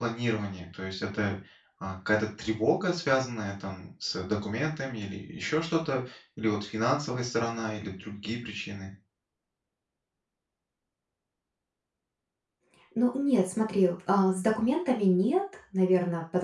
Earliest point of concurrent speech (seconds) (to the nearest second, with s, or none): none